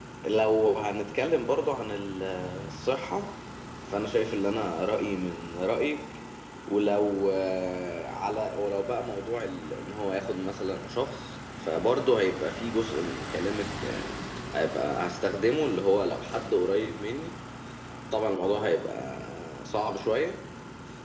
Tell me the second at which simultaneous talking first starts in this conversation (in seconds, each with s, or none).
none